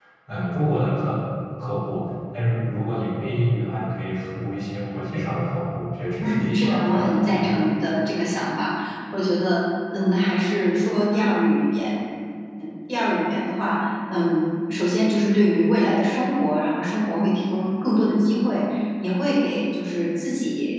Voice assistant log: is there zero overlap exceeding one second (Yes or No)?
No